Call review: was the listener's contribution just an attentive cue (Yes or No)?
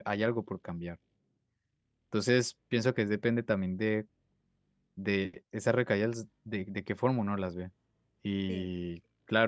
Yes